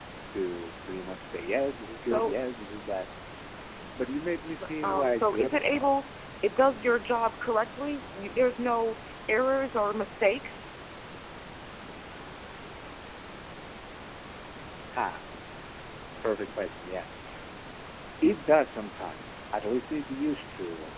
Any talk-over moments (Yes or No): Yes